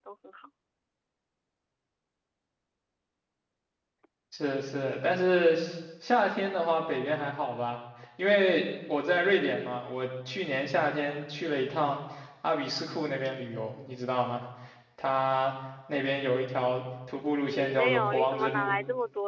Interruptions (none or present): present